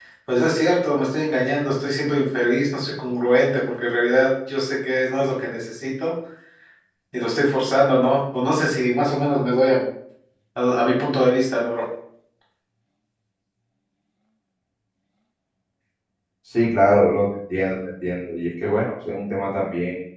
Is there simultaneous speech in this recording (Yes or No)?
No